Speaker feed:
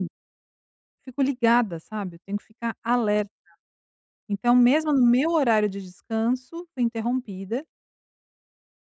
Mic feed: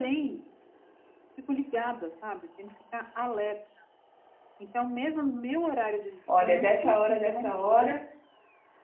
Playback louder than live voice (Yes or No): No